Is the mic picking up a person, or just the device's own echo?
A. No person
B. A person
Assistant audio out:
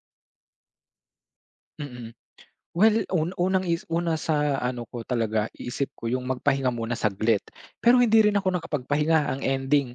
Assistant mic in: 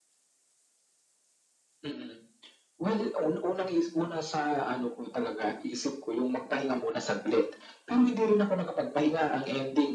A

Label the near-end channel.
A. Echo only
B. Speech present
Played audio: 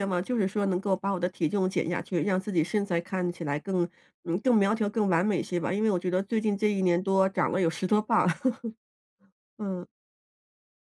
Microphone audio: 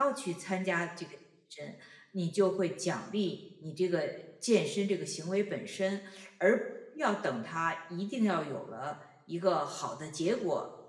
B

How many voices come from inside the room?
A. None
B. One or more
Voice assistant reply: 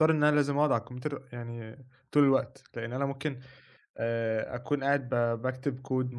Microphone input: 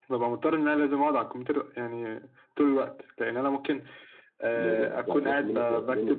B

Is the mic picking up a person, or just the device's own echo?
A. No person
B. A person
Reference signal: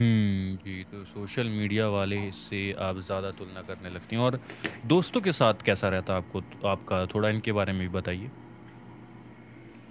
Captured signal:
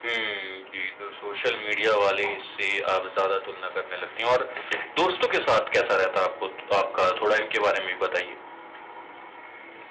A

